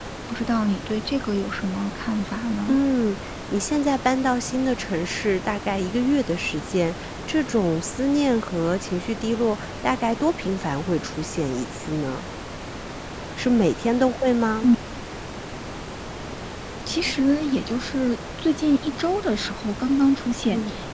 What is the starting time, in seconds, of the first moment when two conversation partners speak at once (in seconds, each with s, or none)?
none